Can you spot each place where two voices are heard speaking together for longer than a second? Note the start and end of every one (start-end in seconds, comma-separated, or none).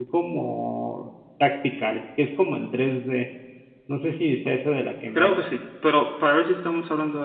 none